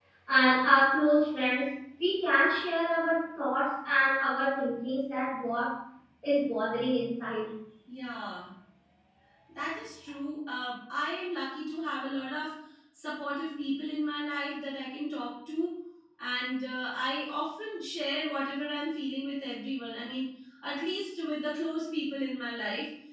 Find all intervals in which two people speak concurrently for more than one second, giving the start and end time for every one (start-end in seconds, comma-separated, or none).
none